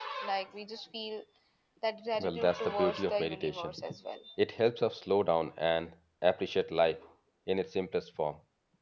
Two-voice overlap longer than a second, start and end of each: 2.2-3.8

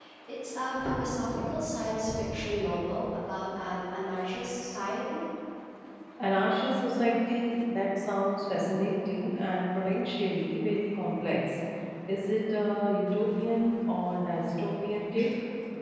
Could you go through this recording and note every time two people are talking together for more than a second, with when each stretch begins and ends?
none

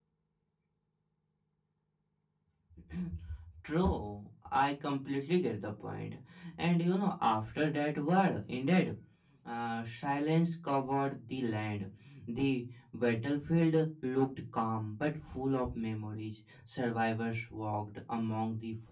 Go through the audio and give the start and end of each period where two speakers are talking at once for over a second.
none

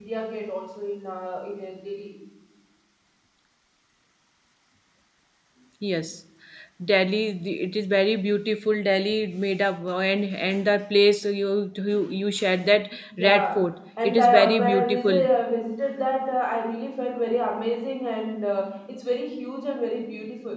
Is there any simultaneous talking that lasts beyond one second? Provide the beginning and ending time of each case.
14.0-15.3

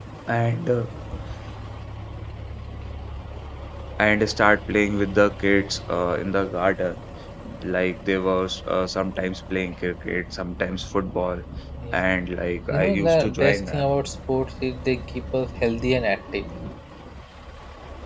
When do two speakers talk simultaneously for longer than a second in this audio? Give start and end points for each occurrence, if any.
12.7-13.9

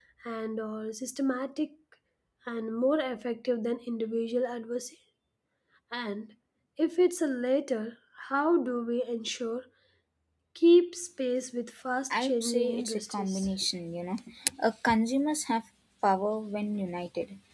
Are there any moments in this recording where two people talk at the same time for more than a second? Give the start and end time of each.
12.2-13.5

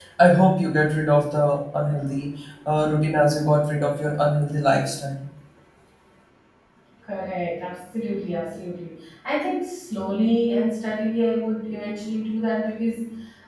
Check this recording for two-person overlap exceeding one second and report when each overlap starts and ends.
none

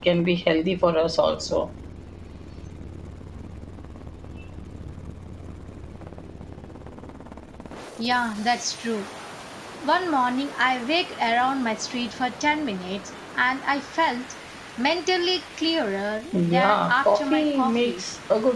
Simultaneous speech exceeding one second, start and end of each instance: 16.3-18.0

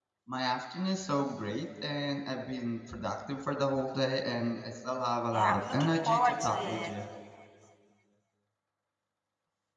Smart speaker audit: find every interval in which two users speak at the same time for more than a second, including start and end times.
5.3-6.9

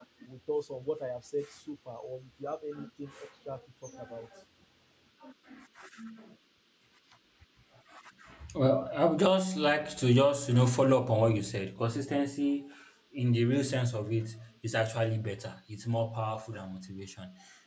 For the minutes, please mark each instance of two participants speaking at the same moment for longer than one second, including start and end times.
none

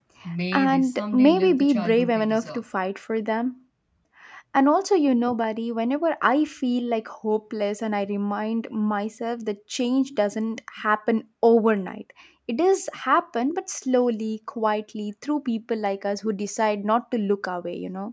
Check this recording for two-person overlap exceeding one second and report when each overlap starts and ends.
0.5-2.6

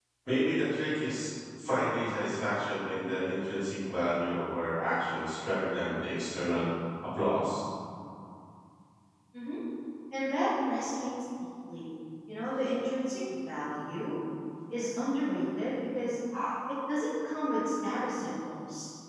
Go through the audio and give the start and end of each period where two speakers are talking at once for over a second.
none

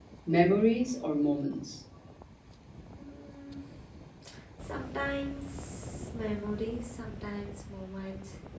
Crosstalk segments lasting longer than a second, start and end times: none

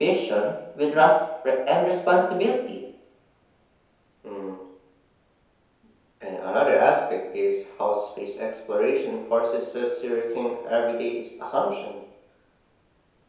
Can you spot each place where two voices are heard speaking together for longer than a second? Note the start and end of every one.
none

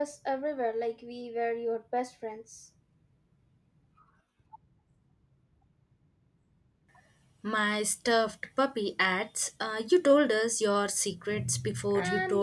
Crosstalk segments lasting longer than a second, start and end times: none

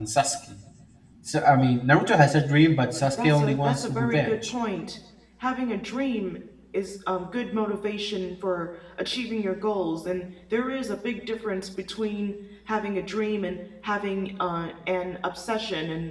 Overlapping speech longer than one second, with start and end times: 3.2-4.5

